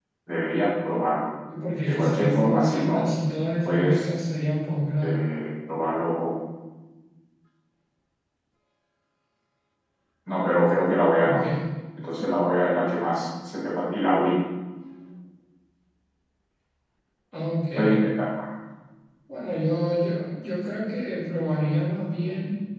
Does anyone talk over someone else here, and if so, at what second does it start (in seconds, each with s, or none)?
1.8 s